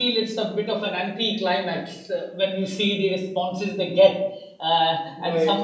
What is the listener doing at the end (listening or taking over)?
listening